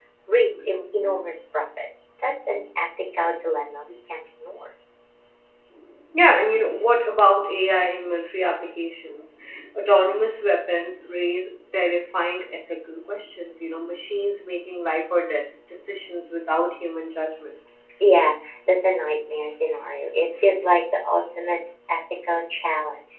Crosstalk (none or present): none